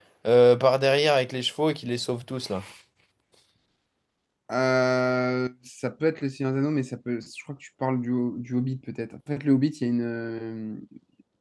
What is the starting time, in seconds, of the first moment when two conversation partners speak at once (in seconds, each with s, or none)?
none